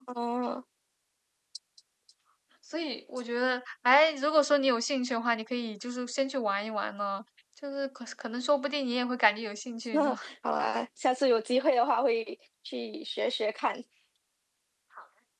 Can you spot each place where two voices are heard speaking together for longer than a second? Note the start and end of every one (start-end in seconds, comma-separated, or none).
none